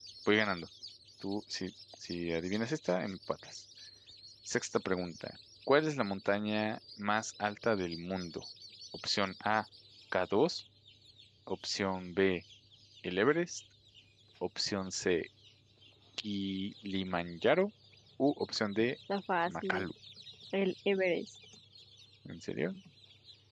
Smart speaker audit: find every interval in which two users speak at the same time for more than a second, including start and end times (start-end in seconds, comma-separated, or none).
none